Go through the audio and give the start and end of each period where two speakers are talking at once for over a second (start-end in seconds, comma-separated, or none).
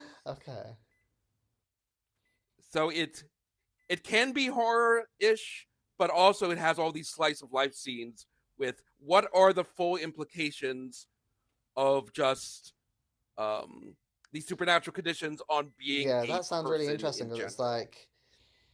15.9-17.8